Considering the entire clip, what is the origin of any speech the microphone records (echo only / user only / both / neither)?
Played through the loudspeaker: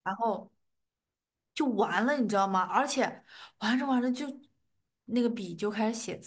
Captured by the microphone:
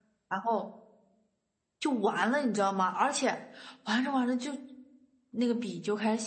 echo only